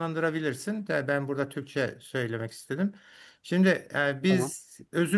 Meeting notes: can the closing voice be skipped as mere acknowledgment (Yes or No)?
Yes